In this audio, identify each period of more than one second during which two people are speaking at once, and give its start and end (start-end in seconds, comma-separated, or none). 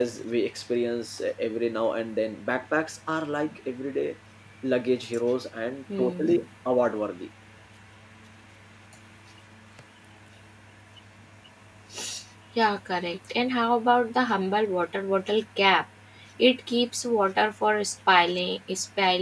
none